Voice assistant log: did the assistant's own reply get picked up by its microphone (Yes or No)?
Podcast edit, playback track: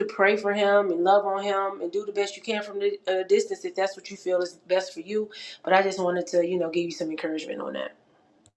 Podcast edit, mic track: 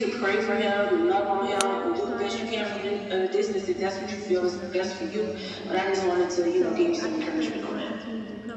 Yes